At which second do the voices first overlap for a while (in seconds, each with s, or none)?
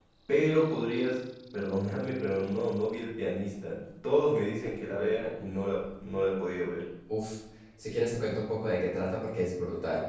none